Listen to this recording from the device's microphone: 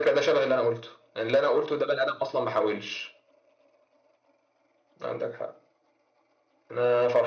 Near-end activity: none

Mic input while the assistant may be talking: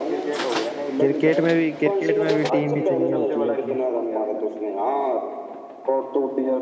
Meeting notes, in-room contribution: present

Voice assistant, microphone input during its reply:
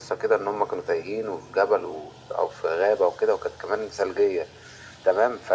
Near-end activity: none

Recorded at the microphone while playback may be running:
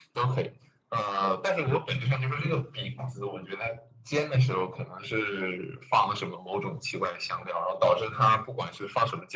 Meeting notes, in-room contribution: none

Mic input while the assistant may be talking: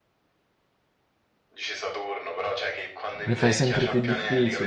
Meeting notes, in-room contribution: present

